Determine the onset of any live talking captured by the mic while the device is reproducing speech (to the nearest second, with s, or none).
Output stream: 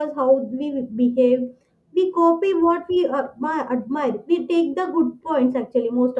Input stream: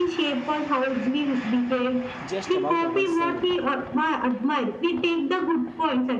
2 s